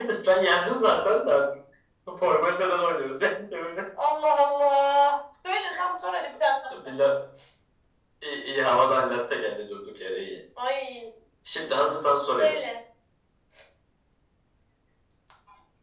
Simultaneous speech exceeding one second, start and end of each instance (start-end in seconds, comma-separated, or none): none